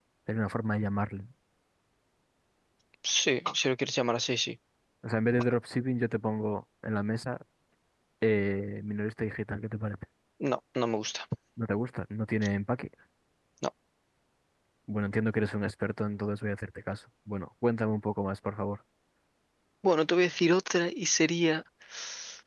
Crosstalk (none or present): none